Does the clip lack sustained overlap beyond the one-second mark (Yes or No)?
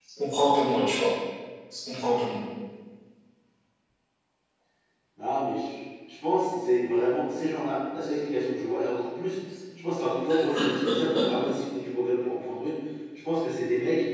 Yes